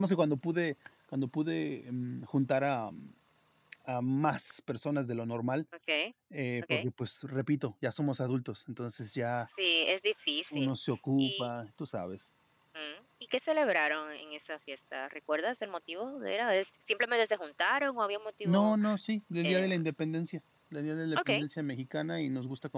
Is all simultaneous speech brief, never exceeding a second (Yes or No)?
Yes